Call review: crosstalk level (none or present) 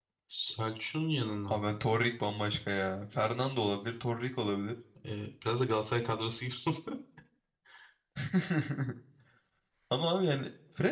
none